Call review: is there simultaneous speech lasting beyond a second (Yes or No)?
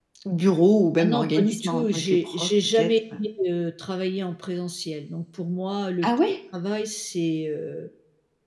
Yes